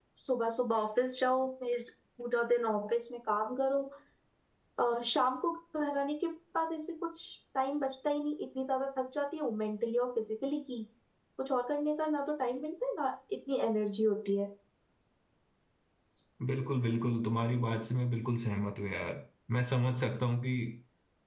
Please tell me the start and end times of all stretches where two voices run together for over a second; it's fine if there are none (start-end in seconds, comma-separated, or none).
none